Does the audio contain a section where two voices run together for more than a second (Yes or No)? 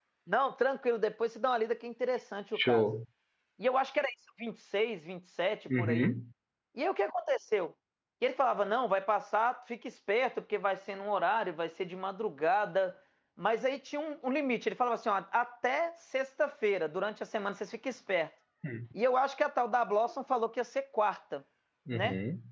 No